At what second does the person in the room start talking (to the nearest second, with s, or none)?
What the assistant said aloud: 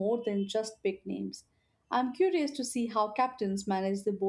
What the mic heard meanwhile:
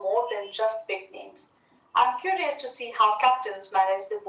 none